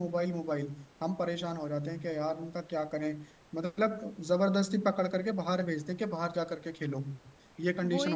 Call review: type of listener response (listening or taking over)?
taking over